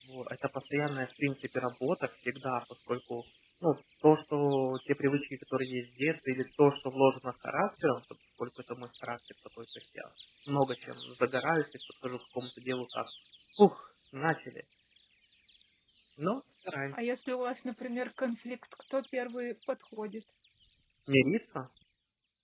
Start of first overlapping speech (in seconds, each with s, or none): none